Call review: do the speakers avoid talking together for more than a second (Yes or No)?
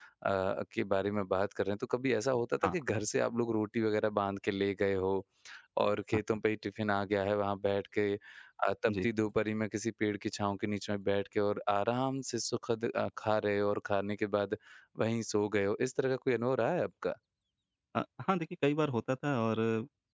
Yes